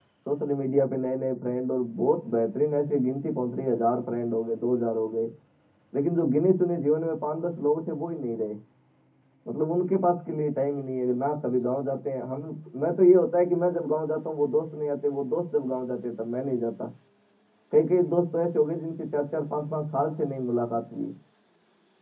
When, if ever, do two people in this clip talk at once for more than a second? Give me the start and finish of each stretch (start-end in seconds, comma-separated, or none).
none